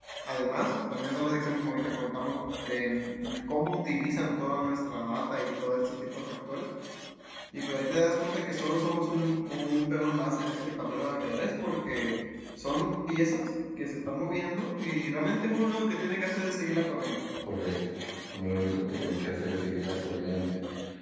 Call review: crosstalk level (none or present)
none